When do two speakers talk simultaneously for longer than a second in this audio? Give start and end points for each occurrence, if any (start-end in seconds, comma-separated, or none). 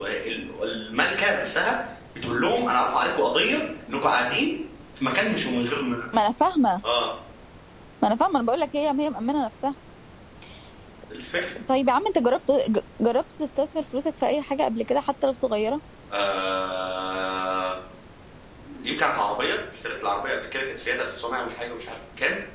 none